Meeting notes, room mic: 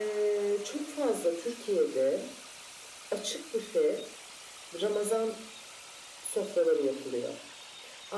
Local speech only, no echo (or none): none